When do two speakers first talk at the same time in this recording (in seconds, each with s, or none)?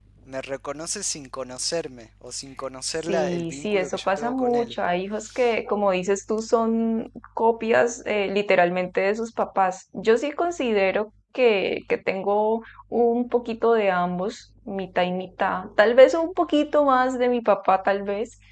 3.1 s